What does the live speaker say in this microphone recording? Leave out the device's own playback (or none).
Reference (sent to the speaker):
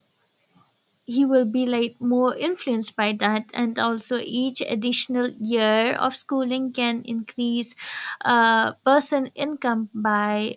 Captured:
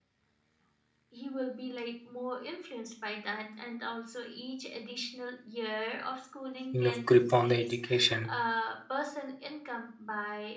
enough grip on the education